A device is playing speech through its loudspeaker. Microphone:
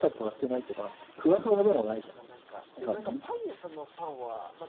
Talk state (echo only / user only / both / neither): both